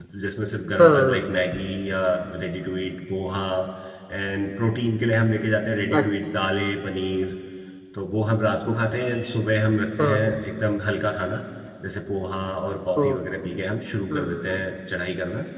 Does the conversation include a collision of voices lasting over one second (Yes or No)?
No